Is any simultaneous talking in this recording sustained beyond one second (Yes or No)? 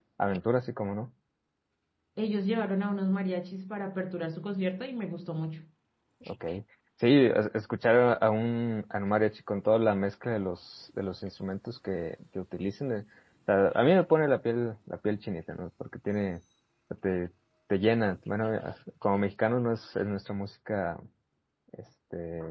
No